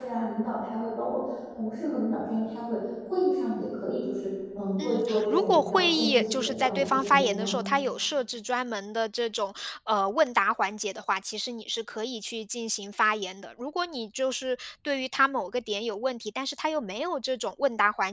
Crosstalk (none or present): present